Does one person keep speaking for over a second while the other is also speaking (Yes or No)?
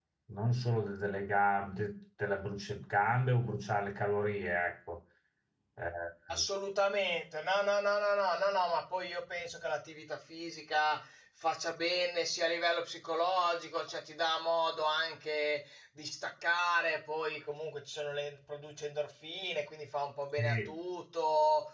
No